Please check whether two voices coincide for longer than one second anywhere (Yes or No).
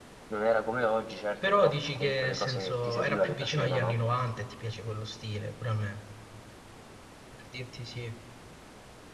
Yes